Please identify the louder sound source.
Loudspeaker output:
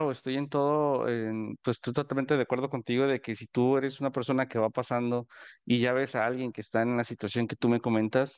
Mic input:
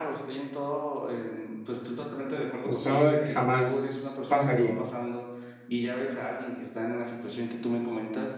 user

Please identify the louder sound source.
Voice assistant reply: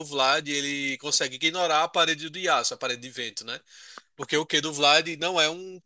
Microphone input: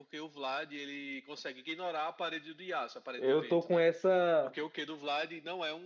user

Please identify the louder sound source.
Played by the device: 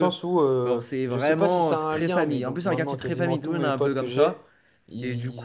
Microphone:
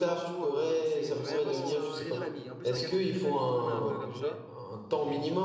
user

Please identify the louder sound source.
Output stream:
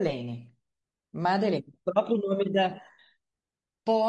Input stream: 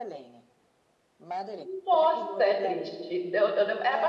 user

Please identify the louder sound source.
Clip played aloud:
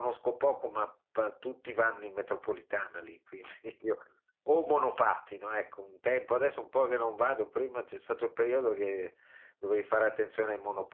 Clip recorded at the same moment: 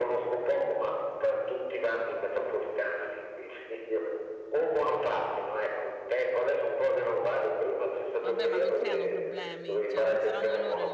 echo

